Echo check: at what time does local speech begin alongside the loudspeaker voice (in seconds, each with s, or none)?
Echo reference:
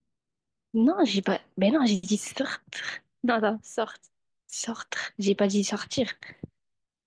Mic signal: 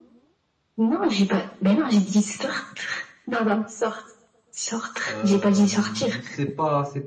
5.1 s